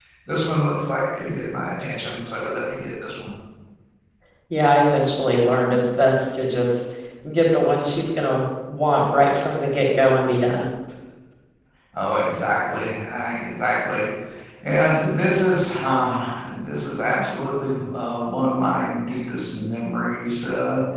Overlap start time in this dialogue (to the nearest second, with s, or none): none